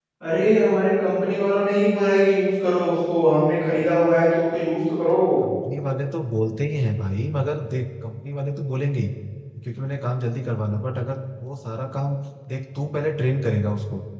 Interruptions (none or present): none